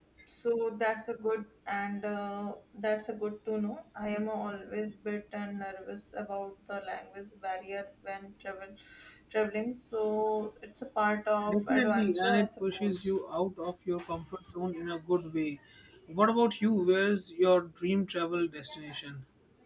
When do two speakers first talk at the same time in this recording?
11.4 s

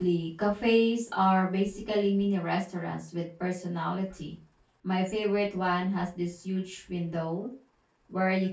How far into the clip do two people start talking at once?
none

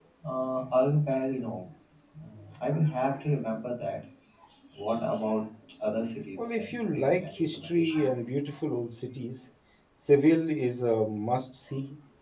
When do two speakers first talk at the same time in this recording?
6.4 s

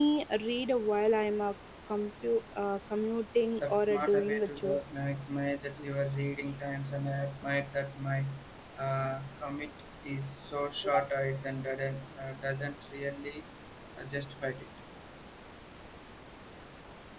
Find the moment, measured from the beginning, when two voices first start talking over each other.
3.6 s

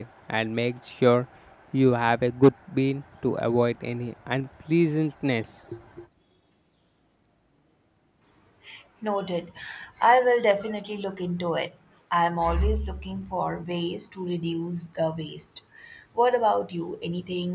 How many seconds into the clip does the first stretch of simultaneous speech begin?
none

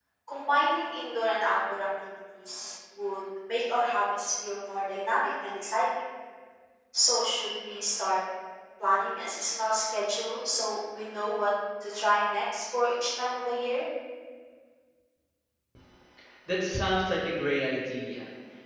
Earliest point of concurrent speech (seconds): none

